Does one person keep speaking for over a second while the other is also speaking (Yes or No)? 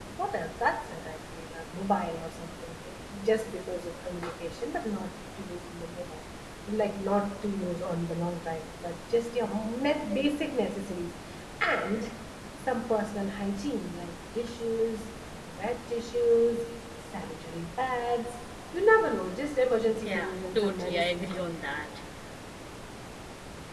Yes